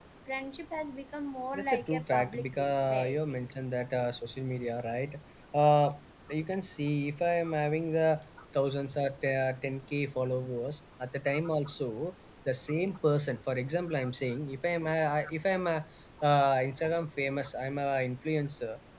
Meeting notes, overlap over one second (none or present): present